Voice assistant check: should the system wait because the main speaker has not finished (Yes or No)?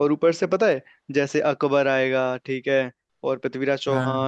Yes